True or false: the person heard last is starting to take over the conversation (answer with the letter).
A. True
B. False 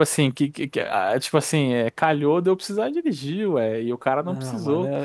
A